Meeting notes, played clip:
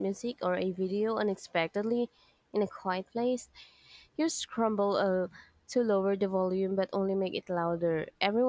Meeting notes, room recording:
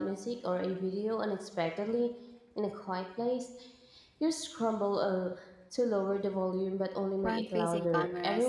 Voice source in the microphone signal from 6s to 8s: both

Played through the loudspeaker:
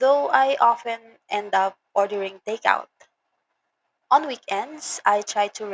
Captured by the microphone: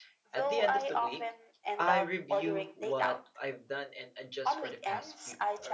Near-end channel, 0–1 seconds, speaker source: both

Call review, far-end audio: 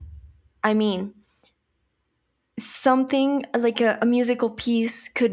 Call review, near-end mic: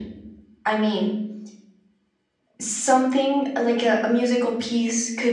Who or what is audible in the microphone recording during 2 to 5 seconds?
echo only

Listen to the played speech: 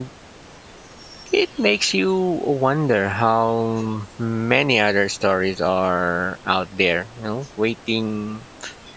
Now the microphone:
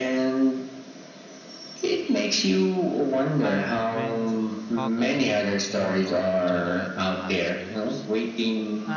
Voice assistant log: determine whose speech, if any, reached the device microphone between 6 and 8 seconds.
both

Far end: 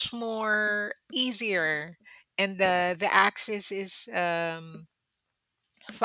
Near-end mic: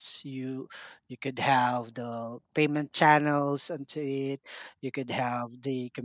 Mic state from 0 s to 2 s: user only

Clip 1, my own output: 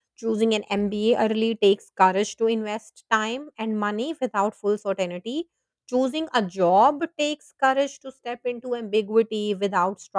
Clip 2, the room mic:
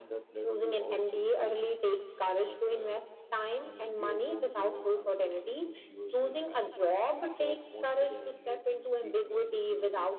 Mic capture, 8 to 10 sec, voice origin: both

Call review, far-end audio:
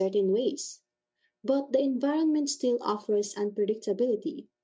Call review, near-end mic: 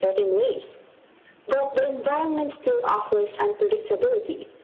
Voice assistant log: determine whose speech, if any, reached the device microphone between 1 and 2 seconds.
echo only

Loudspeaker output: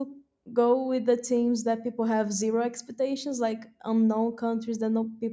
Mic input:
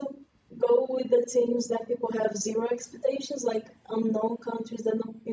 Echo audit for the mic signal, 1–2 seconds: echo only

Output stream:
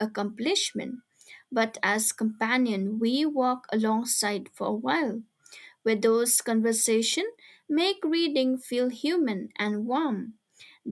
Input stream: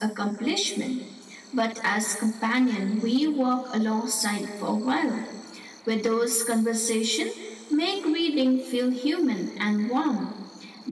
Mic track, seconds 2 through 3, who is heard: echo only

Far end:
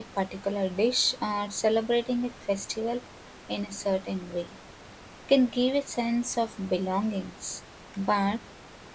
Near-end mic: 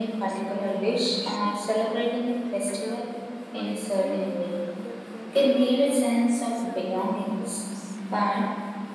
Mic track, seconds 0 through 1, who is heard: both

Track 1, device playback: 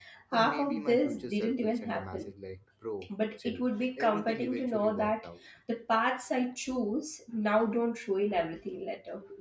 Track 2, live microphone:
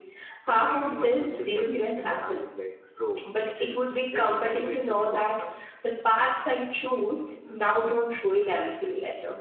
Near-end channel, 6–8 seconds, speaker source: echo only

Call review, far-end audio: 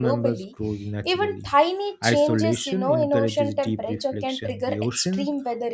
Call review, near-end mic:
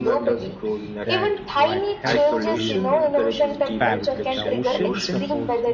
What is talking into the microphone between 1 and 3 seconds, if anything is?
both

